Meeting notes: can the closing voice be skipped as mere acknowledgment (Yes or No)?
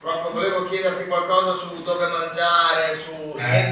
Yes